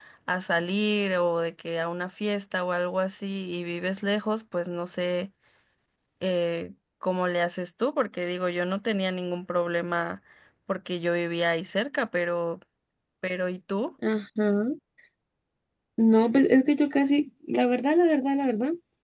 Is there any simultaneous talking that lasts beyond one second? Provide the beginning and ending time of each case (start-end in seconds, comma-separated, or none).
none